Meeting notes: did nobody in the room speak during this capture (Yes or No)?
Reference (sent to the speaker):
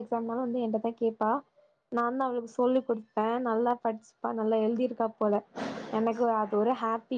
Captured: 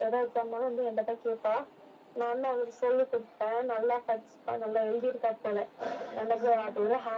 No